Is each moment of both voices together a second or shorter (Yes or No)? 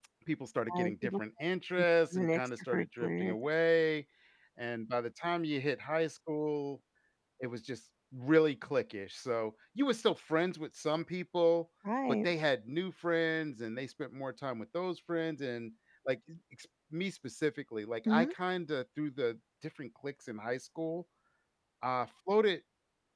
No